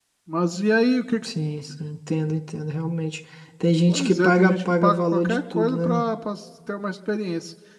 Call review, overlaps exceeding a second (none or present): present